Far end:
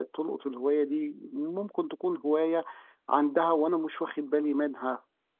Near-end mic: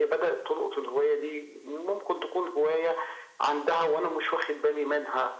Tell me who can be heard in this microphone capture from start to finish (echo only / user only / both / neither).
echo only